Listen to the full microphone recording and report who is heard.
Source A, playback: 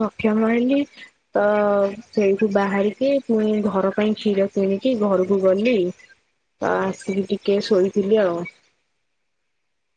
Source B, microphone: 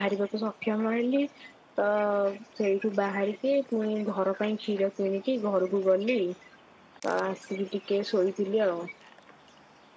echo only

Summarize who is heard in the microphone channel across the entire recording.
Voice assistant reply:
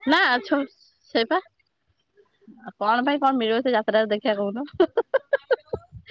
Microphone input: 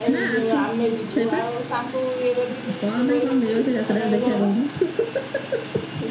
both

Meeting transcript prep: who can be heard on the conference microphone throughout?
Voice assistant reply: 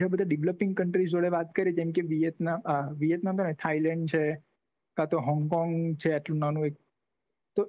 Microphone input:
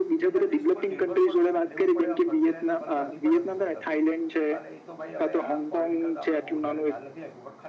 both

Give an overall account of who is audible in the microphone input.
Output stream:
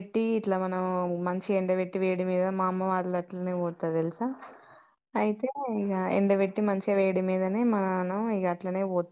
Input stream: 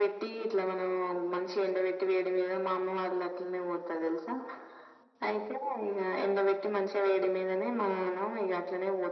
echo only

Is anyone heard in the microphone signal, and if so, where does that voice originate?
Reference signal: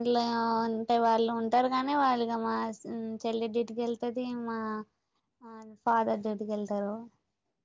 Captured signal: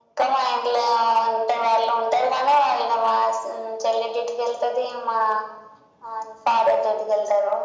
echo only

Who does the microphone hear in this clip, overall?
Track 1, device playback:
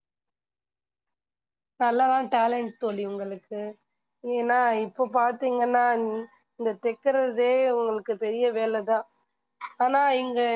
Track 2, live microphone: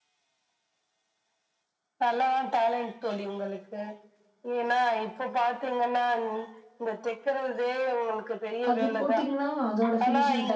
both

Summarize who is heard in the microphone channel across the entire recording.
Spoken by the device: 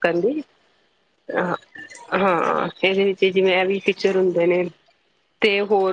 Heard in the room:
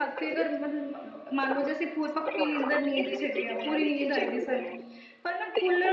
both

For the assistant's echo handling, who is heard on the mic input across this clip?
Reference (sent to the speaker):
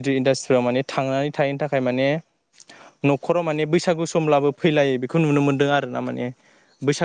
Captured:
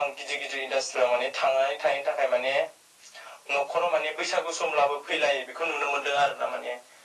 echo only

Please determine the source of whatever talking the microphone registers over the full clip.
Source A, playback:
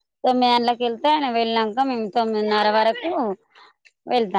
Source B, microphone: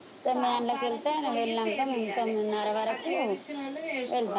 both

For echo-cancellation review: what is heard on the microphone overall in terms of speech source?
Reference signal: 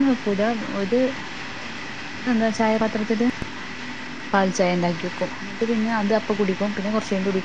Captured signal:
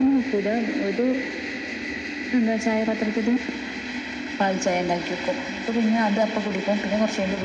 echo only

